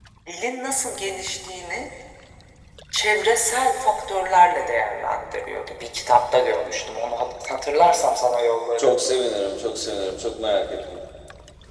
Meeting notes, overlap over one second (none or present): none